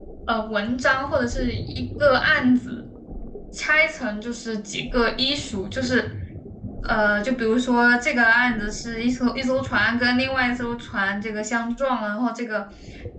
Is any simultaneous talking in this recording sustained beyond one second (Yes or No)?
No